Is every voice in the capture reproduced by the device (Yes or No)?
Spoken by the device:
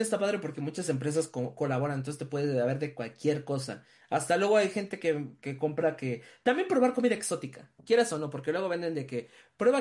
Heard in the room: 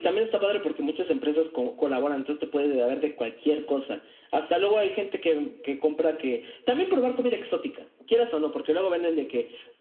Yes